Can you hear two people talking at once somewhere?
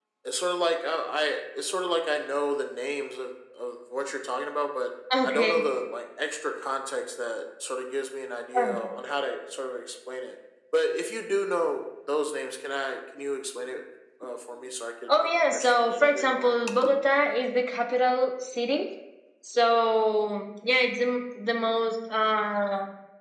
Yes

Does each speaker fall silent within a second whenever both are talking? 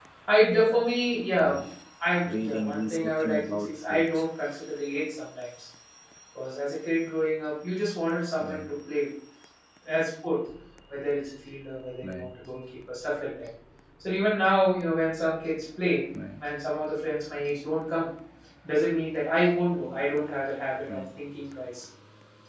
No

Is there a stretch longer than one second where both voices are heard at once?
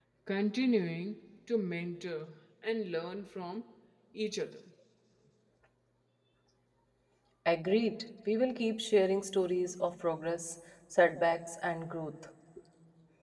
No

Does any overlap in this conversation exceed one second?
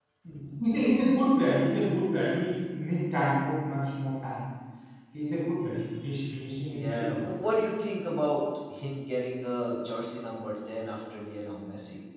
No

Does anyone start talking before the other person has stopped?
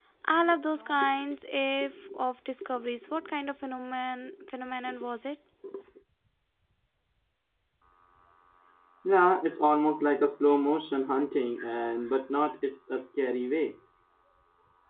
No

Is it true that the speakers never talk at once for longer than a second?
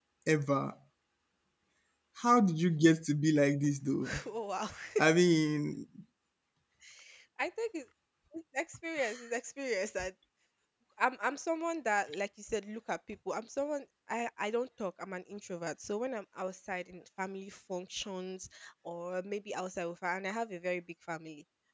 Yes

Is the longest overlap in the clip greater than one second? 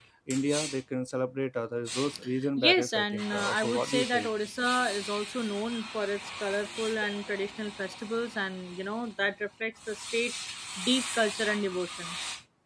Yes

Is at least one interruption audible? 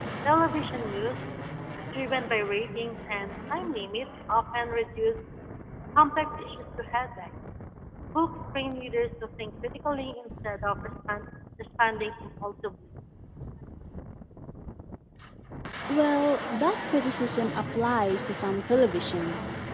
No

